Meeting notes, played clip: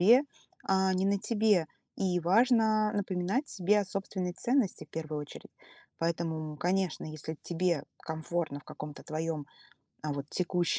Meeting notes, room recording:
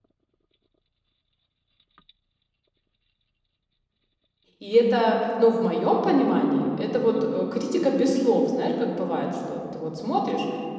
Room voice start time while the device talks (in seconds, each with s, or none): 4.6 s